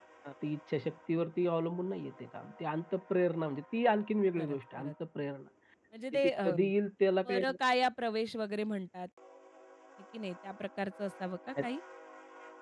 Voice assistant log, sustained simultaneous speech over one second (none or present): none